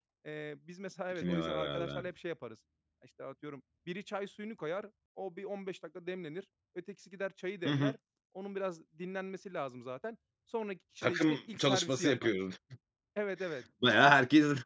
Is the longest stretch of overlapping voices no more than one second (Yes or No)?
No